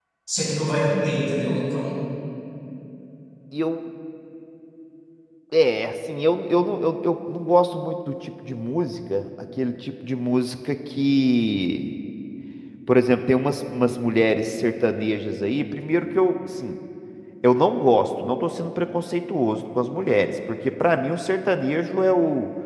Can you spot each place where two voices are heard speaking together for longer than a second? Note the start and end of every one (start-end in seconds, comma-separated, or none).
none